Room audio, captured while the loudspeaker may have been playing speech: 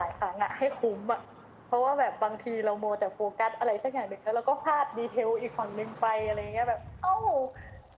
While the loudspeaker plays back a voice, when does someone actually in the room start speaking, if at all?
none

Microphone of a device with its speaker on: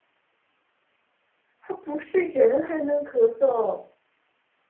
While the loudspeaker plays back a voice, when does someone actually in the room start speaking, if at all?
2 s

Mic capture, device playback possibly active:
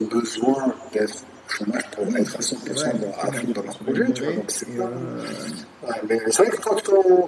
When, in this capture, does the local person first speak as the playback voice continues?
2 s

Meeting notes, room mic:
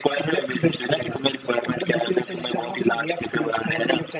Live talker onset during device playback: none

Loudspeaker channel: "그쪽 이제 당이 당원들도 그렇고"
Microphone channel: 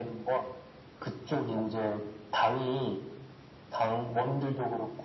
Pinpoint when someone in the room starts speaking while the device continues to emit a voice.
none

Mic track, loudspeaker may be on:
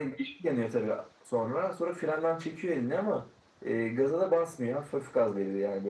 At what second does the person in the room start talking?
none

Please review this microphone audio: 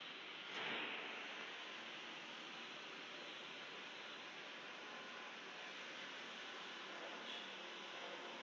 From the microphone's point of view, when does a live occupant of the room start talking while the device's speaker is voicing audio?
none

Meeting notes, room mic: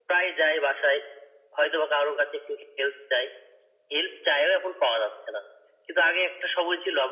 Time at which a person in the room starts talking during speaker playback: none

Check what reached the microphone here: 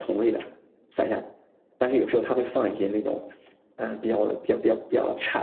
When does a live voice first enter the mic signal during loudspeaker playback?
none

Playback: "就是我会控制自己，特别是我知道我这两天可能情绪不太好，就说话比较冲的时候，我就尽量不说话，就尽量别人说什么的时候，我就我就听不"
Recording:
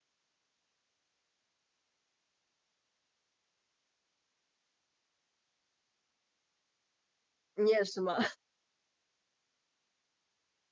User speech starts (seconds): 8 s

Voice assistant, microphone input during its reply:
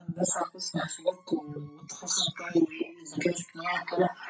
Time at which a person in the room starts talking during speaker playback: none

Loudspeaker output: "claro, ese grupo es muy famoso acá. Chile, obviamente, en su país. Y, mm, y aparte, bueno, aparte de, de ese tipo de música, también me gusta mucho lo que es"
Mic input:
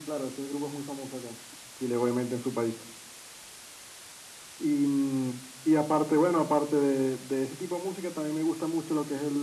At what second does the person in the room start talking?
none

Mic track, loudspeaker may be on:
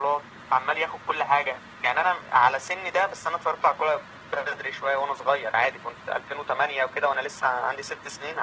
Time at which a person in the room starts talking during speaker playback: none

